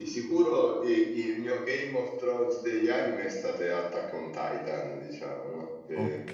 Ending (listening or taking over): listening